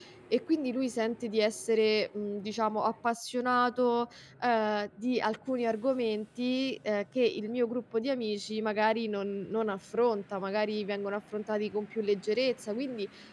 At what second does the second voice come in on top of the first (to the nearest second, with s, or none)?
none